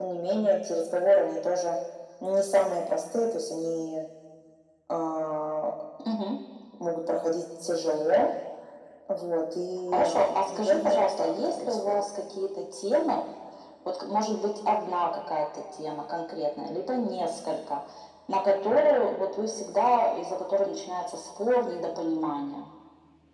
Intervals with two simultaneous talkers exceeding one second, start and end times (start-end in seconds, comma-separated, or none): 9.9-12.0